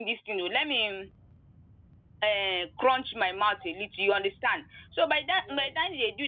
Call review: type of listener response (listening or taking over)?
listening